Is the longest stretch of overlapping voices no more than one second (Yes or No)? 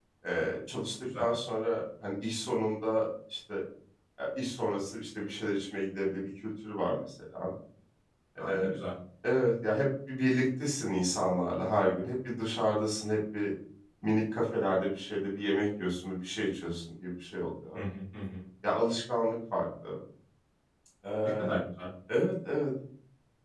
Yes